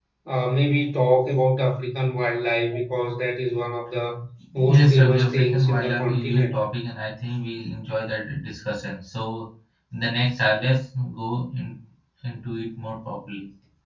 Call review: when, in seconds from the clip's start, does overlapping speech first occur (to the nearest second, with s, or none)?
5 s